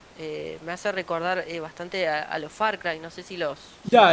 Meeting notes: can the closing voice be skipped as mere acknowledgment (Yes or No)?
No